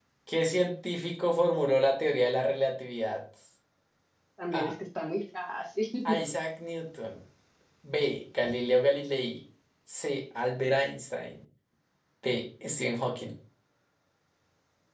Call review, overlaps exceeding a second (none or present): none